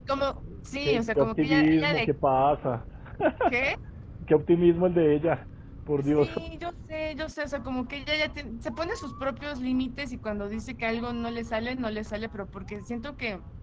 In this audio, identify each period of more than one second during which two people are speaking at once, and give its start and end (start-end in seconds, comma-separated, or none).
0.8-2.1